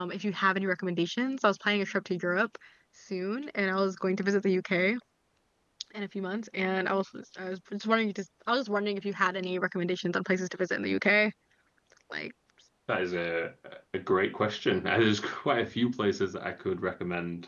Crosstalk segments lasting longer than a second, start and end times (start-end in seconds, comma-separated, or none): none